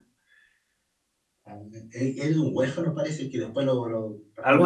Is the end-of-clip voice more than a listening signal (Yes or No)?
No